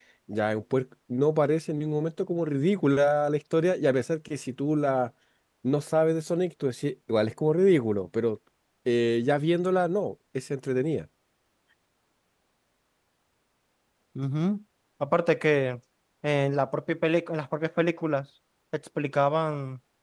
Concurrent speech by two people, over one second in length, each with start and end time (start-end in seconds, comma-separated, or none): none